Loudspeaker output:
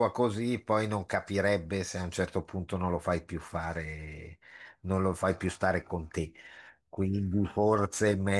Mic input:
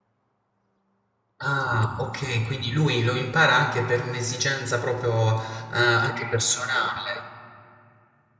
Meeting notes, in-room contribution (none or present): present